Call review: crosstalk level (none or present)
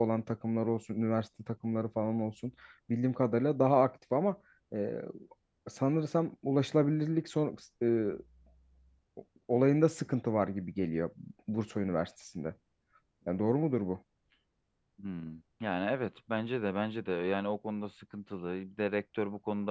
none